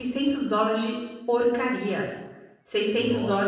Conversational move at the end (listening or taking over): listening